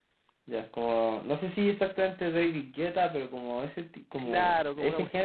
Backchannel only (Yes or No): No